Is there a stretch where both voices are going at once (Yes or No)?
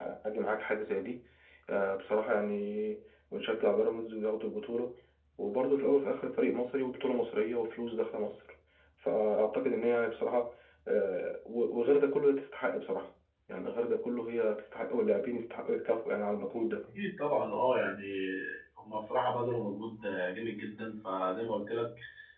No